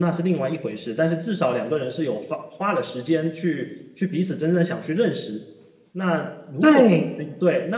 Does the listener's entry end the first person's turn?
No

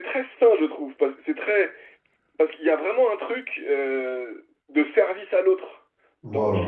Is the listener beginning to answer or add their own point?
No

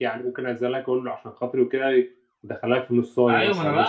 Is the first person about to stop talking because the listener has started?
Yes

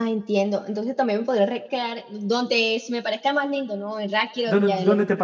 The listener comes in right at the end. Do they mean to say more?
Yes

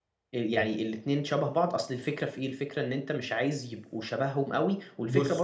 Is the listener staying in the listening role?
Yes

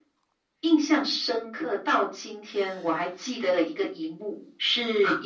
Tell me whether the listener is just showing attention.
Yes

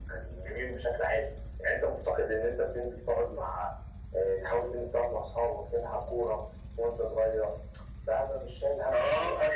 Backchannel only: No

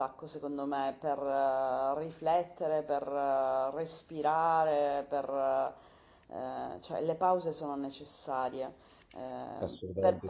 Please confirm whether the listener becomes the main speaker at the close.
No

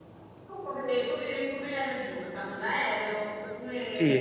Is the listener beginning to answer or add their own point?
Yes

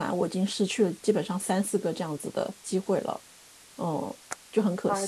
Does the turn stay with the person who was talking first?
No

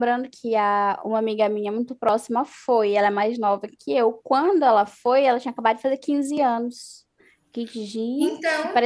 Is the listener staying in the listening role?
Yes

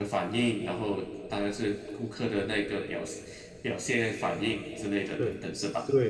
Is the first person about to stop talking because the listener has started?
Yes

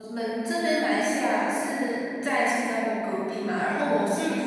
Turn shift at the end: No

